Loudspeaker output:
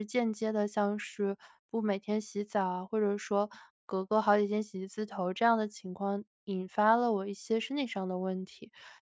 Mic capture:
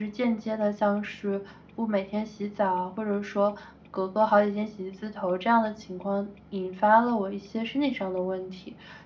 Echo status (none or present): present